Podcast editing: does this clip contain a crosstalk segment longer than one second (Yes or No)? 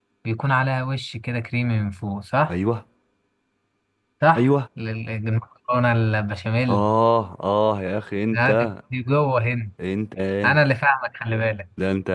No